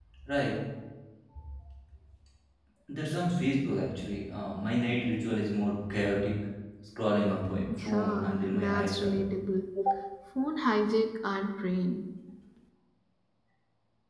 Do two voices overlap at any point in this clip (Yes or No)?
Yes